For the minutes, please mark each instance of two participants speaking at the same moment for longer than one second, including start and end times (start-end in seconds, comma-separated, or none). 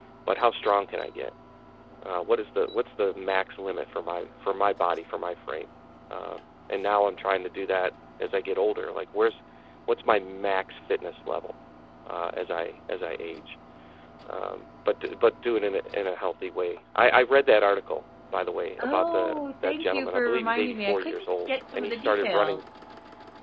18.8-22.6